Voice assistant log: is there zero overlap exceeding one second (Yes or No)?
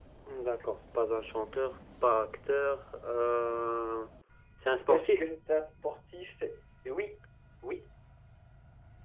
Yes